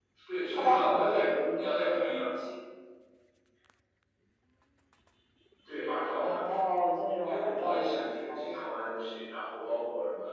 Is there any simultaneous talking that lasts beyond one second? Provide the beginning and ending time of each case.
0.5-2.3, 7.2-8.7

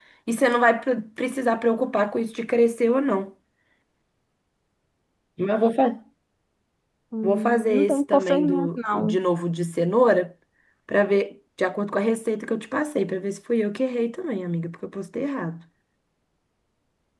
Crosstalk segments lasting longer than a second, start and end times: 7.2-9.2

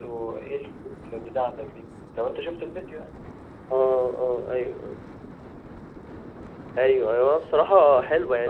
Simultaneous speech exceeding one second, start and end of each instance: none

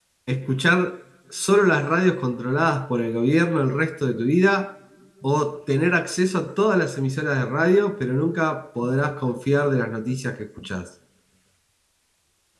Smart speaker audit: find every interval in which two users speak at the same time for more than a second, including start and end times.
none

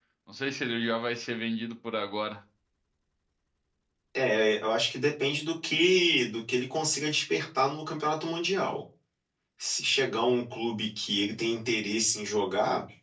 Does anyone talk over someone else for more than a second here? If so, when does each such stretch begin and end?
none

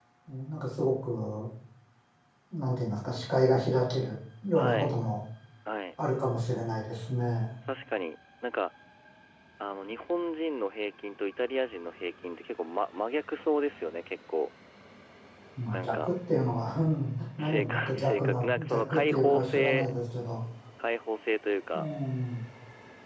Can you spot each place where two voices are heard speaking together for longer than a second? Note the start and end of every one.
17.4-19.9

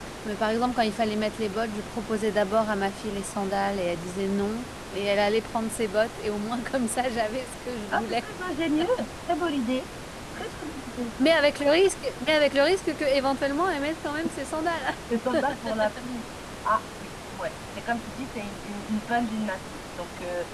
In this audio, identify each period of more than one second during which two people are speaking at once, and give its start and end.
none

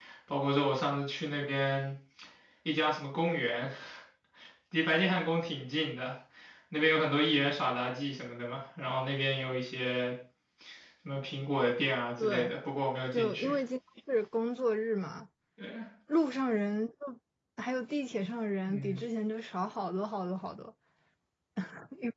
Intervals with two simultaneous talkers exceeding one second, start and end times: none

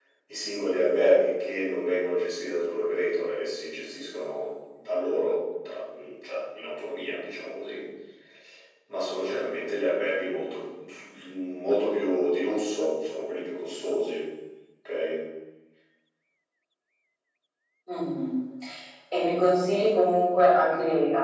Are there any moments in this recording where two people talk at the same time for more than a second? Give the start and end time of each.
none

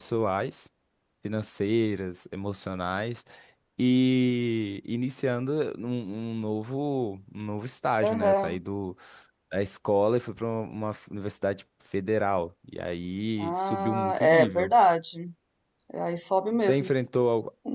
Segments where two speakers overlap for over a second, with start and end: 13.4-14.7

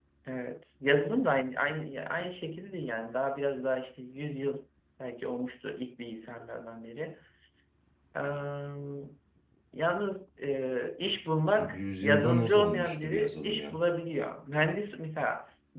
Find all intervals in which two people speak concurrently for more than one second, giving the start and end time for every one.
11.6-13.8

